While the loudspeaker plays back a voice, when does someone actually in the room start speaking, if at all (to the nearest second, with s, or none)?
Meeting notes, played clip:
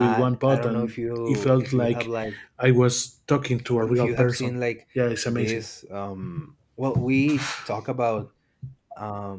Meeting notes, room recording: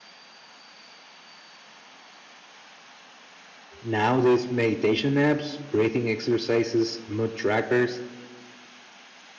4 s